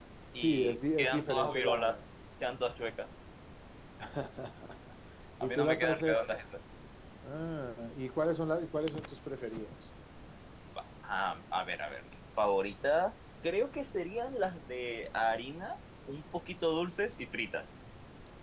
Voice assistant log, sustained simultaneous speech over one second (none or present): present